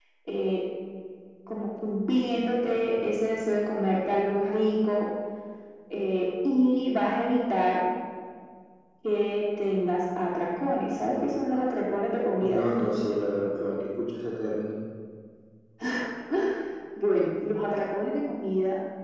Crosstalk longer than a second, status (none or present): none